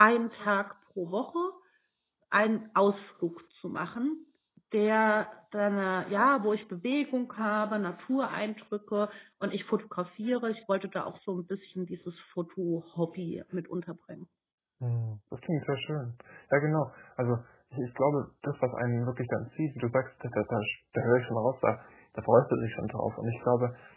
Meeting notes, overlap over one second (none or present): none